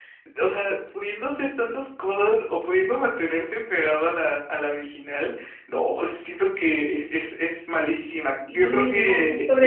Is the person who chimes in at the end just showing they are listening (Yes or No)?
No